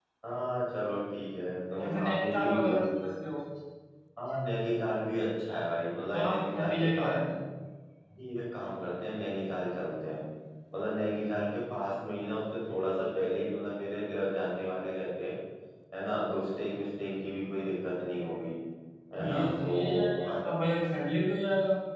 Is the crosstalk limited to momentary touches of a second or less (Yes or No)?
No